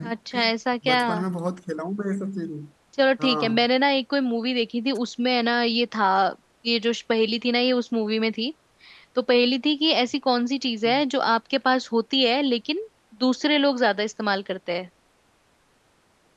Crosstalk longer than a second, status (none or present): none